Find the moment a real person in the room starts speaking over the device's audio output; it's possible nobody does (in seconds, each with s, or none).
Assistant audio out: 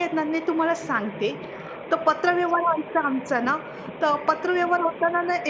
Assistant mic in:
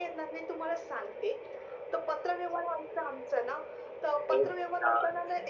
4.3 s